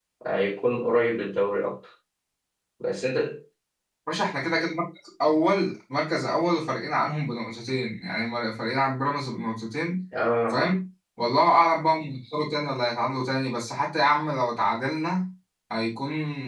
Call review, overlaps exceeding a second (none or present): none